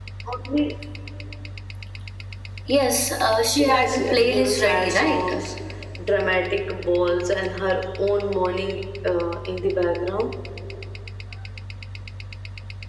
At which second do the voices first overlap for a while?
3.6 s

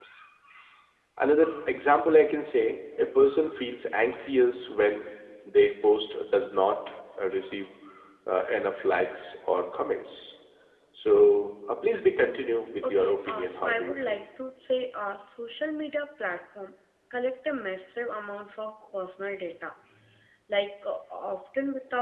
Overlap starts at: 12.8 s

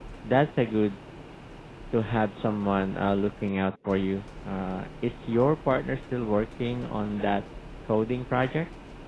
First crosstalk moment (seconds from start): none

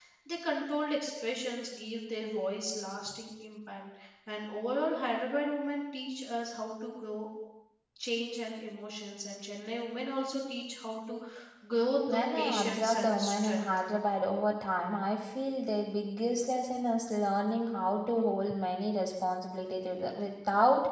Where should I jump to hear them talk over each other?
12.1 s

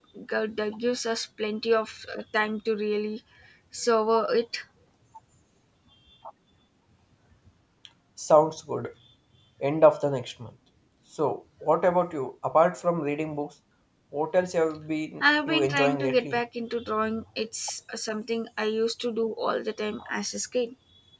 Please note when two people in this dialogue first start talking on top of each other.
15.2 s

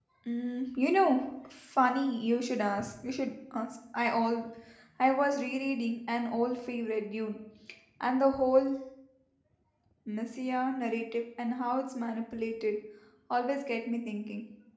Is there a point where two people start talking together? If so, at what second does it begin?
none

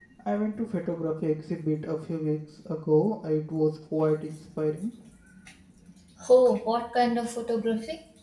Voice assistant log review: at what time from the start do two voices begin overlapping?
none

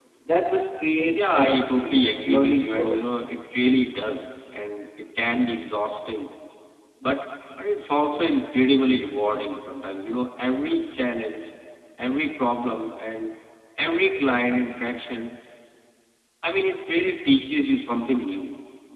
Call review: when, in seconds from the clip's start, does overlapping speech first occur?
1.1 s

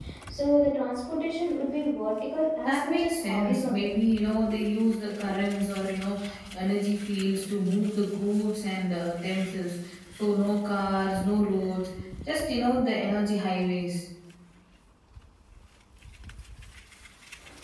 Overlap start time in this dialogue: 2.6 s

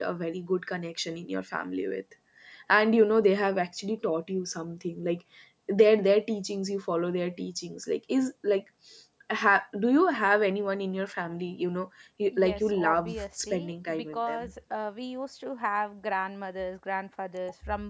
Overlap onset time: 12.3 s

